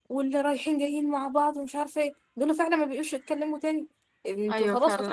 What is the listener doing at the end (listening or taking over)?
taking over